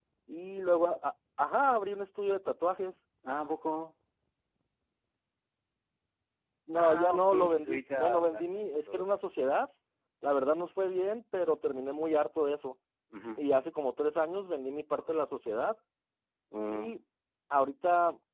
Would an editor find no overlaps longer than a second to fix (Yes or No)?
No